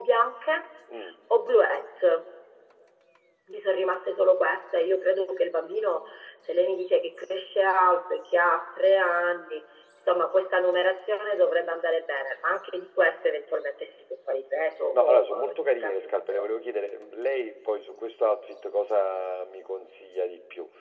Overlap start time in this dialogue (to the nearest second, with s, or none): 15 s